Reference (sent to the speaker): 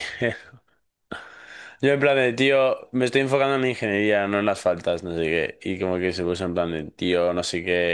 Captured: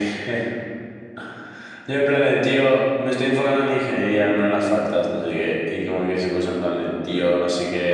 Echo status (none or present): present